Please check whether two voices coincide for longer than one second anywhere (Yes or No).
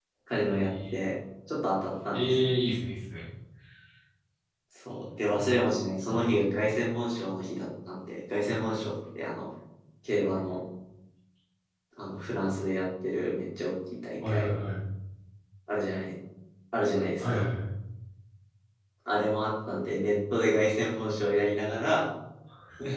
No